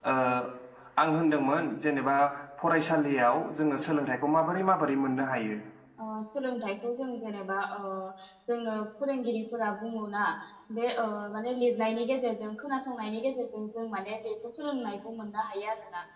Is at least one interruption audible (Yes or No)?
No